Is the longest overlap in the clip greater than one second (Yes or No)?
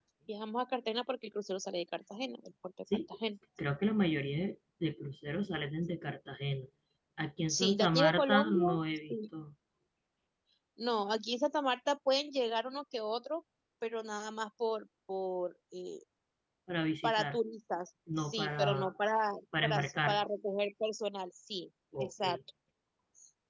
Yes